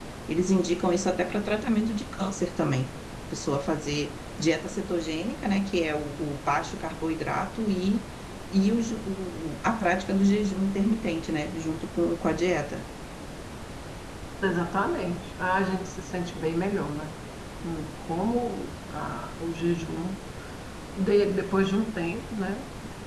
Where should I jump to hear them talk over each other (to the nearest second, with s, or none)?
none